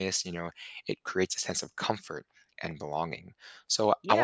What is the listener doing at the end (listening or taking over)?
taking over